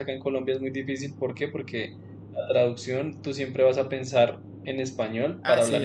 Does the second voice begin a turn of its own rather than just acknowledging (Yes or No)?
No